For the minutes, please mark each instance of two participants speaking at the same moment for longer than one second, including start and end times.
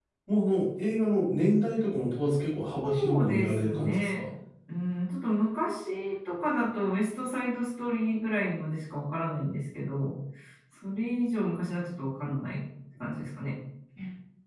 2.8-4.2

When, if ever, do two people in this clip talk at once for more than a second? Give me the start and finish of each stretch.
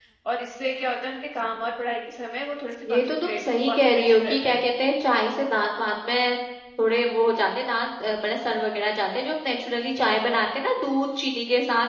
2.8-4.6

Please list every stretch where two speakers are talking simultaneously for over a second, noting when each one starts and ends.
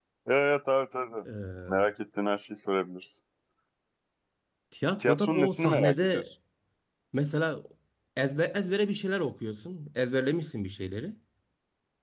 5.0-6.2

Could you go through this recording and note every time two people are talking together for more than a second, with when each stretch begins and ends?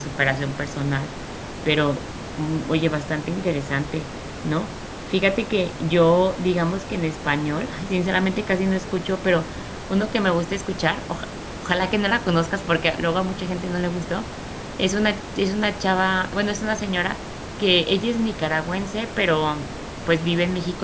none

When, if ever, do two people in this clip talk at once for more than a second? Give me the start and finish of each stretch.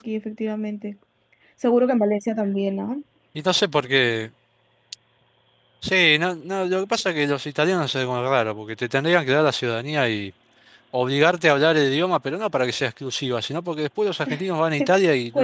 none

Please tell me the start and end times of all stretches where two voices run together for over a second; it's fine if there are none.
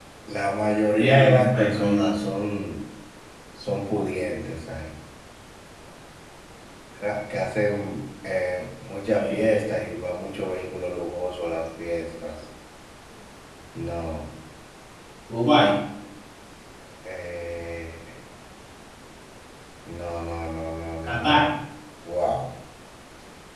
1.0-2.2

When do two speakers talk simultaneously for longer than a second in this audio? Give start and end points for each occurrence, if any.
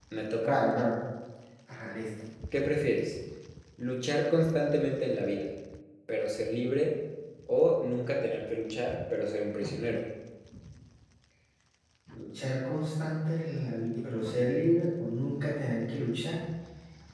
none

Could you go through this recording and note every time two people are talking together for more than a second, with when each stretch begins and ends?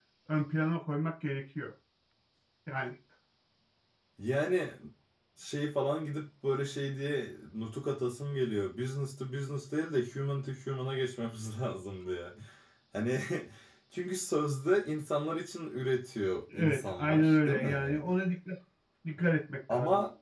16.5-18.1

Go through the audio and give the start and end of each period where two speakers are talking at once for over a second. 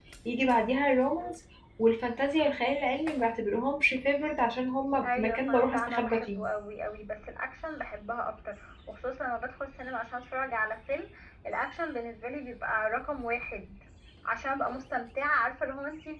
5.0-6.4

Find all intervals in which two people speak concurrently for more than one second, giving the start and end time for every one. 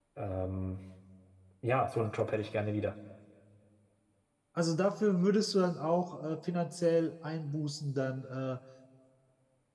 none

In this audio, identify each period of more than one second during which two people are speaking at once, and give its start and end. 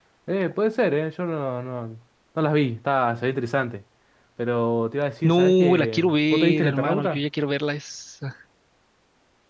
5.2-7.2

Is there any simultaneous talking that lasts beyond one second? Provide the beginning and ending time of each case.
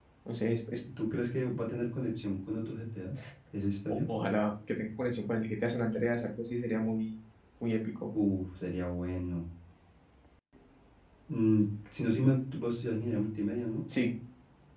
none

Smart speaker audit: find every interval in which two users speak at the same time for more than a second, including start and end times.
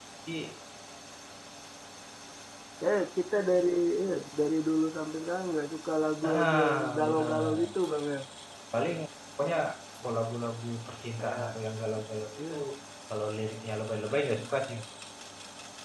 6.2-7.7

